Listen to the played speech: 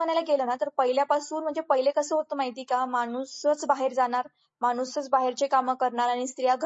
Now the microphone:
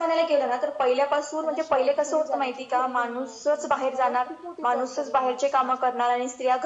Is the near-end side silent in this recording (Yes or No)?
No